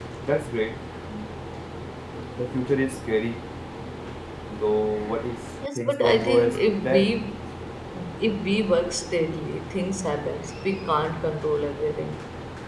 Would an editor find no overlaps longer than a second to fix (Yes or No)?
No